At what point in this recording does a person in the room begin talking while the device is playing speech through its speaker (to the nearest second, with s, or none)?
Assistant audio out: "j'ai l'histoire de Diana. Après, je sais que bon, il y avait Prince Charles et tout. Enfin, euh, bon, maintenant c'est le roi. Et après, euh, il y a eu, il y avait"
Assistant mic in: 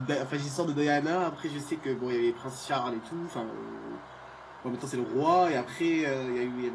none